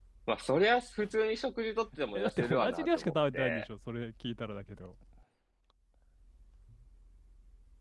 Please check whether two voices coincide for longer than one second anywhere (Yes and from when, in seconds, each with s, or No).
Yes, from 2.2 s